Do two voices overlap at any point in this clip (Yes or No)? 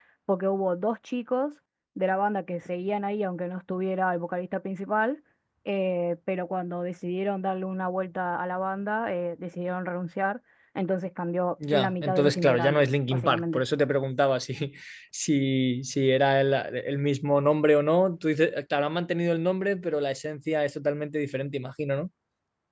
Yes